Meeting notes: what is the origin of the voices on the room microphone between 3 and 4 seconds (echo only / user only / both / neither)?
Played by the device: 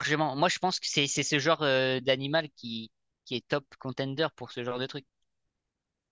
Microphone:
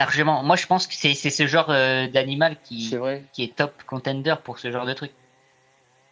both